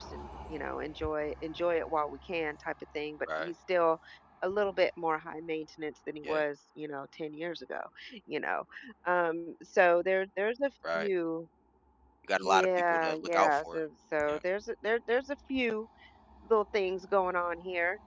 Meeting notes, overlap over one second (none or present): present